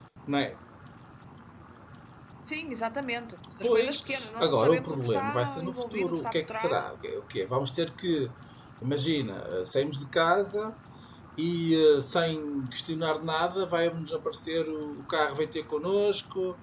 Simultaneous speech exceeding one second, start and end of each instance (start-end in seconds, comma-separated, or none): 3.6-6.7